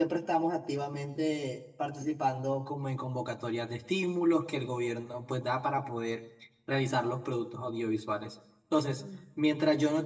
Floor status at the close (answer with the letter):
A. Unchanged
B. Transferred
A